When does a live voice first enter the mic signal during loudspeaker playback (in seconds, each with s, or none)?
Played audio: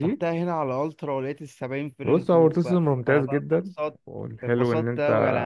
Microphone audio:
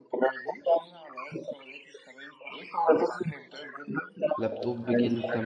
4.4 s